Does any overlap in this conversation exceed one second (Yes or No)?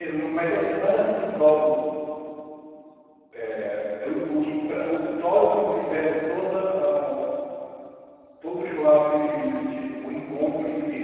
No